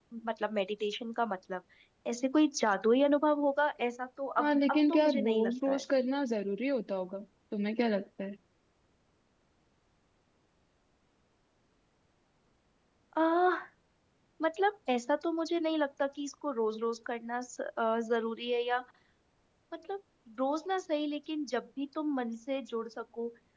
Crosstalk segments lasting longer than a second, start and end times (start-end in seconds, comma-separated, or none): 4.4-5.8